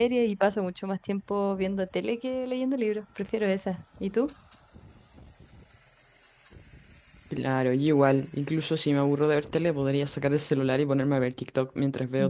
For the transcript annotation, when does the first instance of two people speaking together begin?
none

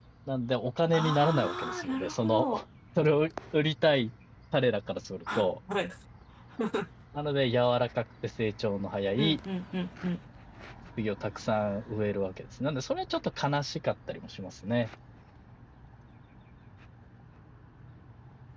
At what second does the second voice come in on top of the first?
0.9 s

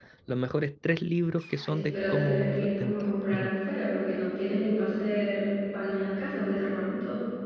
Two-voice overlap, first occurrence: 1.7 s

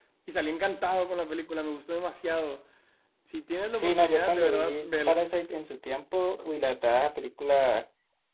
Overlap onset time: 3.7 s

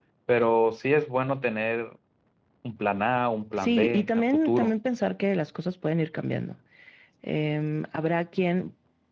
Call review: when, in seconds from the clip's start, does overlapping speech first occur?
3.5 s

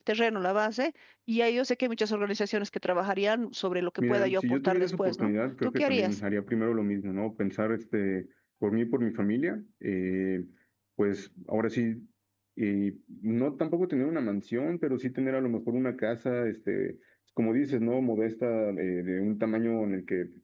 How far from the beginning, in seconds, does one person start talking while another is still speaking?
4.0 s

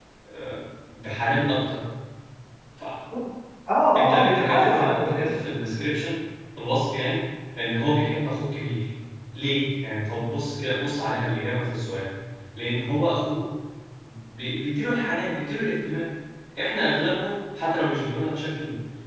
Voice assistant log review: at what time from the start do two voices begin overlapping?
4.0 s

